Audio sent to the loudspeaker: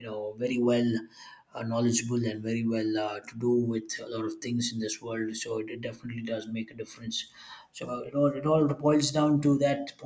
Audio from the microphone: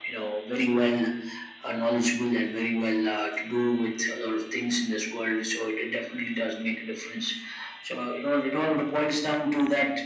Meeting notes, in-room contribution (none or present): none